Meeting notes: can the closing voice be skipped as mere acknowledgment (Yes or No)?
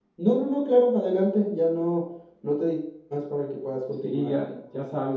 No